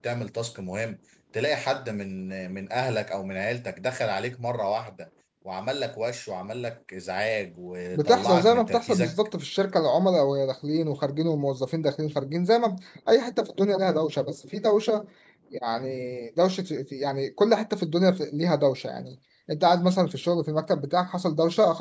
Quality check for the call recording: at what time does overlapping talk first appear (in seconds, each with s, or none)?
7.9 s